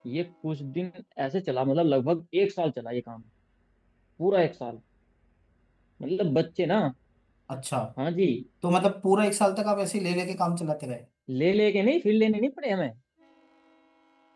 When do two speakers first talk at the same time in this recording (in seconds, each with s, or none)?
none